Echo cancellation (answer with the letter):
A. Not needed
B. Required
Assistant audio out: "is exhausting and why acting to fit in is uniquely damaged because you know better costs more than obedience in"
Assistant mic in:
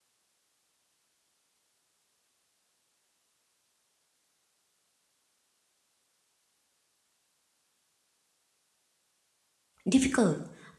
A